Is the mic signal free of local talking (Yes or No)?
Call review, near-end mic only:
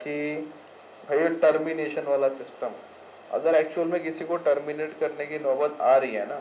Yes